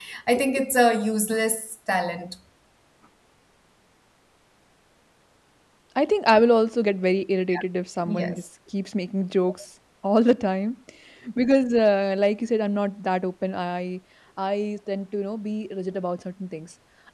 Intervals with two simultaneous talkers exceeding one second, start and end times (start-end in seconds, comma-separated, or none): none